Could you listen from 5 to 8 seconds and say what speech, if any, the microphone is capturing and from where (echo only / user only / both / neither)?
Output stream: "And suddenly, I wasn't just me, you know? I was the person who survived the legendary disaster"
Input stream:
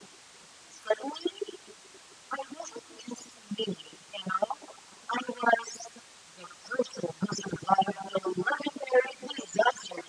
echo only